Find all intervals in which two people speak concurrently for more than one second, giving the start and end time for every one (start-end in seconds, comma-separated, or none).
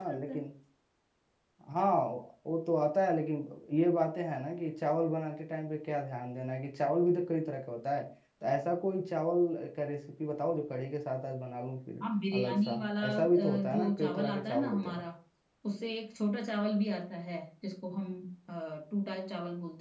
12.3-15.0